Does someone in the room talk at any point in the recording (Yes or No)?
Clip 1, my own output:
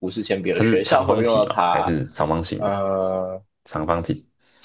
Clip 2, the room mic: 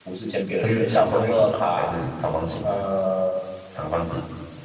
No